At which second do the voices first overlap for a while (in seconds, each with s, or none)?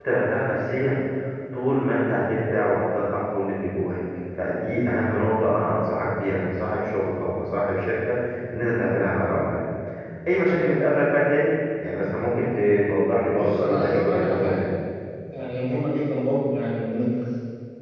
13.4 s